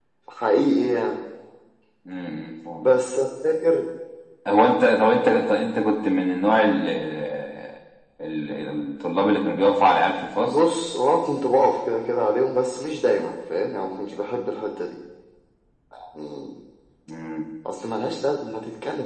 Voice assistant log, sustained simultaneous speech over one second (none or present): none